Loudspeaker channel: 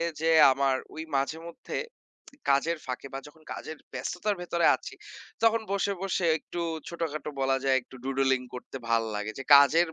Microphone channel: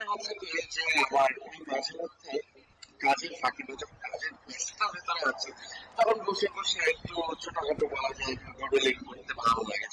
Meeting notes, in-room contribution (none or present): none